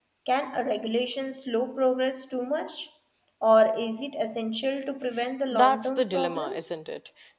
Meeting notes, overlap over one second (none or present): present